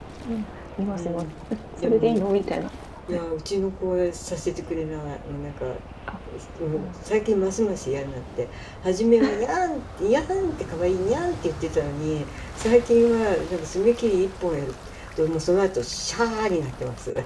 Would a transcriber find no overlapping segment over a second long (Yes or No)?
Yes